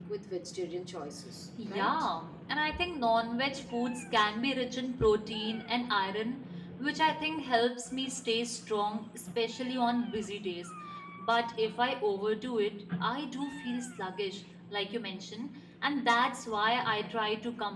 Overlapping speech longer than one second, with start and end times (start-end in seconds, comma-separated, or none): none